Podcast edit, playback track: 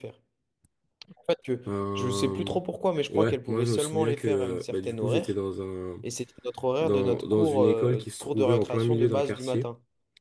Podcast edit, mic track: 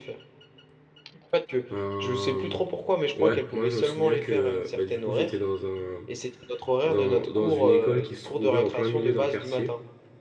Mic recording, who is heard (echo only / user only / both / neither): echo only